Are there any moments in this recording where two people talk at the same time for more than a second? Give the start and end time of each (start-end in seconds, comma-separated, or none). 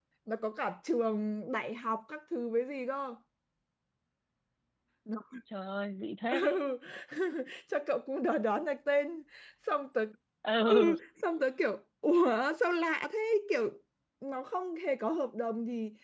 none